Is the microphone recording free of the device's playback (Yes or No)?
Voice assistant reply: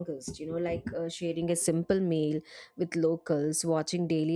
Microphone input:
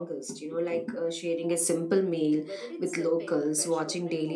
No